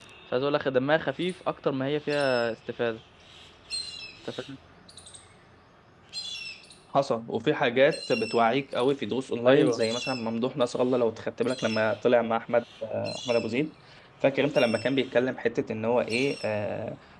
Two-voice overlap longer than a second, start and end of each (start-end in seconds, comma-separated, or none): none